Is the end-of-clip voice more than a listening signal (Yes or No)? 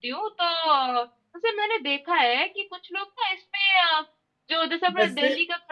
No